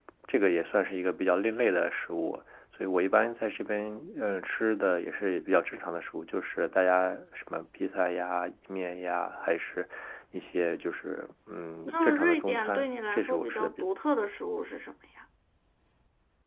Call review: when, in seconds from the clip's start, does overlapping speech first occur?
11.9 s

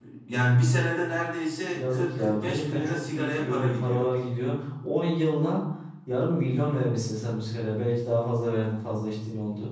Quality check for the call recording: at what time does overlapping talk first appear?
1.7 s

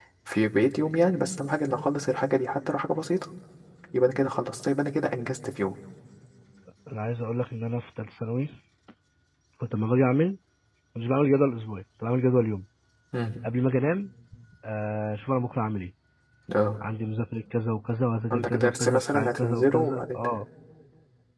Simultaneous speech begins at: 18.3 s

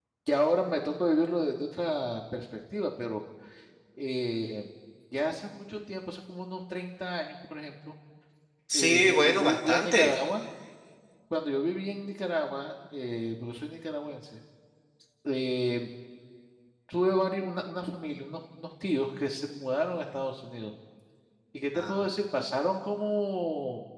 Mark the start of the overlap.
8.7 s

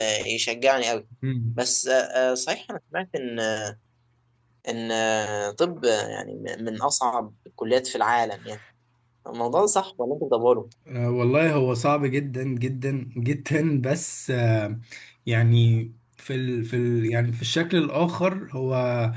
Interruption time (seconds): none

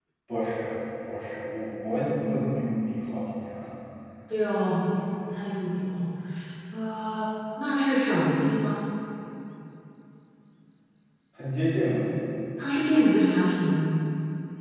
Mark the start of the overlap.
none

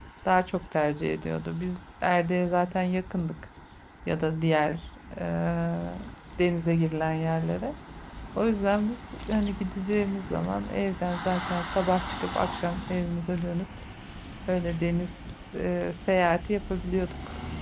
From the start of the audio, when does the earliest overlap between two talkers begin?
none

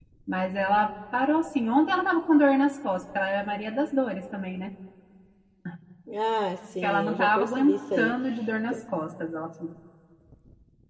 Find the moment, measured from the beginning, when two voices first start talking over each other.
6.8 s

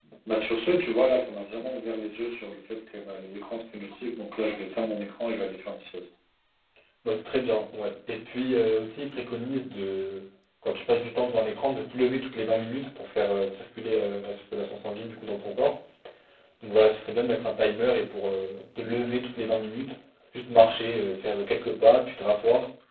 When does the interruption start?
none

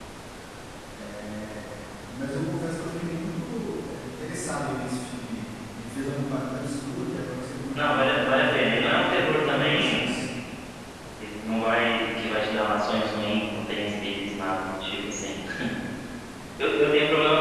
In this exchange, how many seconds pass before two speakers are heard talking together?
7.8 s

